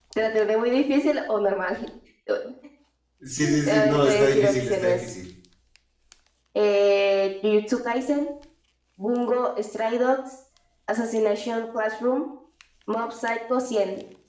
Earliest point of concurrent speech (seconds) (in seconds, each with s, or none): 3.7 s